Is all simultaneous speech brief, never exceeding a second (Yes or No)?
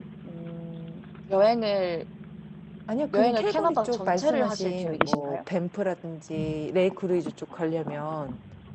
No